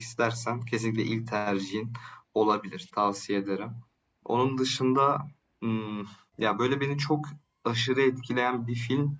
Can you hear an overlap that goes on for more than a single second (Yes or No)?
No